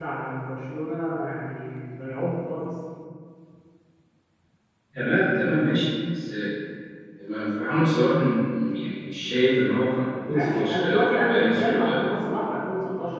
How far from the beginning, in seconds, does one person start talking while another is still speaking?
10.3 s

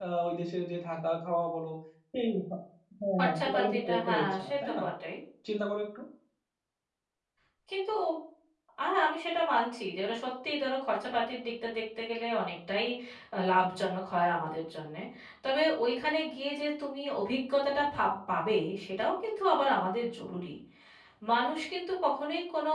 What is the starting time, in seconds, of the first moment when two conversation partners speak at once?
3.2 s

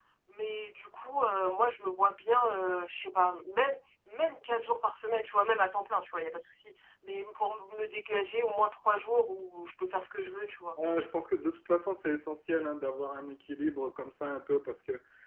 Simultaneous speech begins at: none

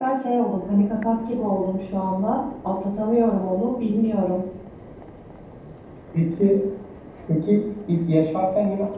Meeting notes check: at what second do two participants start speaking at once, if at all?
none

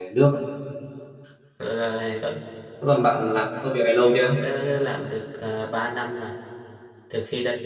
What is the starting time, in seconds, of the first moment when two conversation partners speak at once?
none

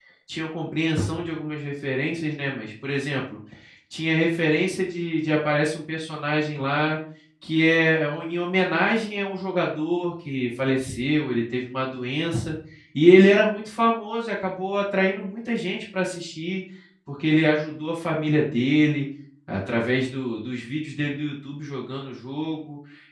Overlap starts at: none

